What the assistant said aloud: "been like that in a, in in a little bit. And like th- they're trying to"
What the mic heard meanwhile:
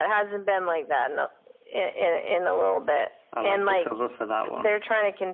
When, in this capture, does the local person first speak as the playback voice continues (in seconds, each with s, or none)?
3.3 s